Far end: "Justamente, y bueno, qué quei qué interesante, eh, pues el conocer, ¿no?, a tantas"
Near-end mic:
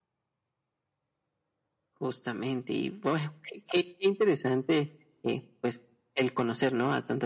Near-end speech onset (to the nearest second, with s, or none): none